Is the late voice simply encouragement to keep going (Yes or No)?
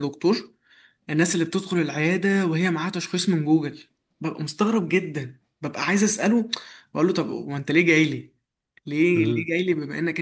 Yes